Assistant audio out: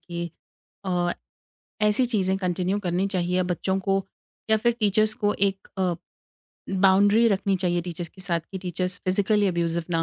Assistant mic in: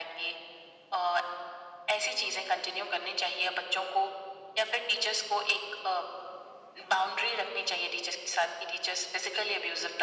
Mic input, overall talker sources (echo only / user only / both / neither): echo only